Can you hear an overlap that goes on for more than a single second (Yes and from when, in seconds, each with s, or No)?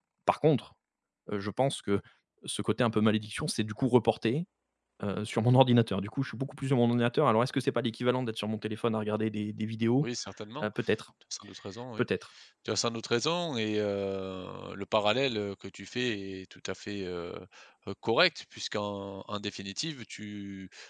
No